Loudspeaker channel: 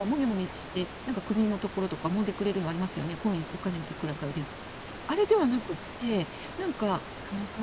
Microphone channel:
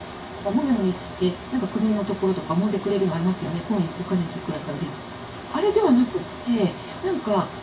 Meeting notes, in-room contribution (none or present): none